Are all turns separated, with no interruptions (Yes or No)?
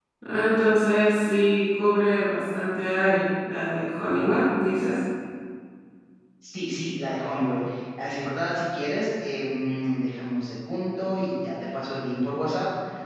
Yes